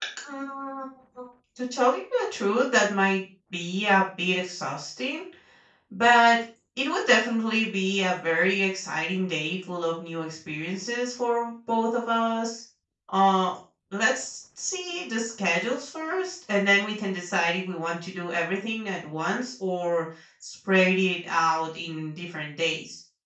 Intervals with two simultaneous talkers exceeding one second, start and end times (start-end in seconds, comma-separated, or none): none